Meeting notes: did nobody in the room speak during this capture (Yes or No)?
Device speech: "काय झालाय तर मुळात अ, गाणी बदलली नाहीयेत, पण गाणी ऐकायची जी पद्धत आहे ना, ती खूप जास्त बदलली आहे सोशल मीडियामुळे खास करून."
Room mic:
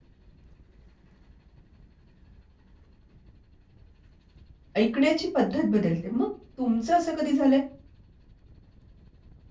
No